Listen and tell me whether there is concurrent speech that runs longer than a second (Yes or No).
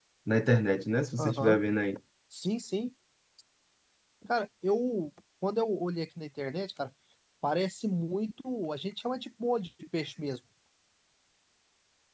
No